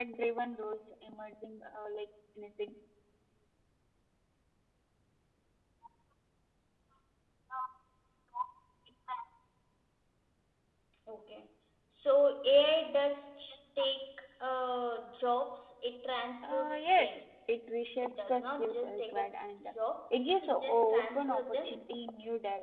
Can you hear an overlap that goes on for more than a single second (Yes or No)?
Yes